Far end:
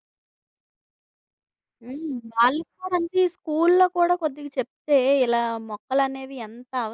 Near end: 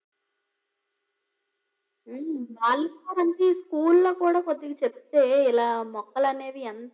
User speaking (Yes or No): No